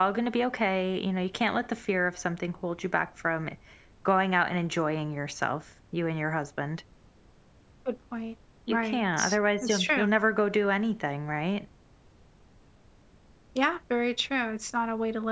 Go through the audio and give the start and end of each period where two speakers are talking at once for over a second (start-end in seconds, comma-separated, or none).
8.7-10.0